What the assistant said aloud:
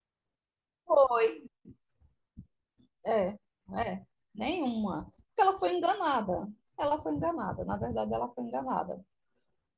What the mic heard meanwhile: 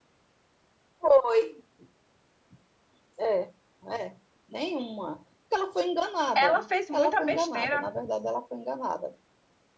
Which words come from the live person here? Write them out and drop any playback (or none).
Ela fez muita besteira.